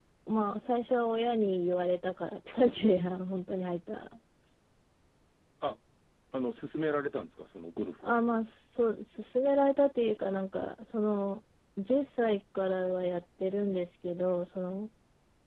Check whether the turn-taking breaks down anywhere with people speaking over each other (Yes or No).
No